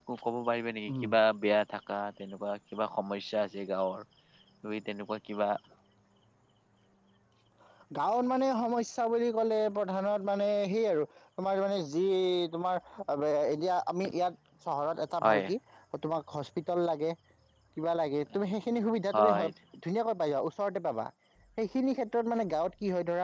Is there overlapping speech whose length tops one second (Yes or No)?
No